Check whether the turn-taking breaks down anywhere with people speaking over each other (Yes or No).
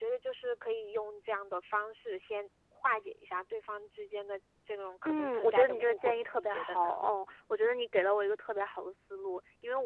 Yes